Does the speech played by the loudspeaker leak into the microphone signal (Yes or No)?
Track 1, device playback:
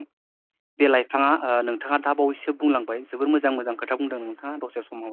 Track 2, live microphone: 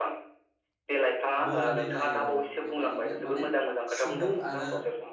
Yes